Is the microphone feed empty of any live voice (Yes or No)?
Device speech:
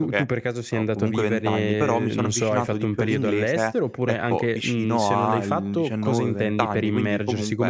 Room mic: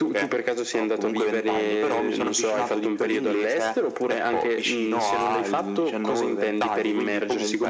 Yes